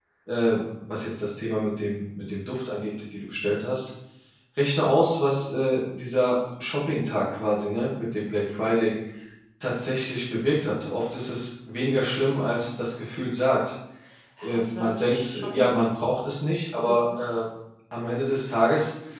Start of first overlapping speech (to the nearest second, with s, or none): 14 s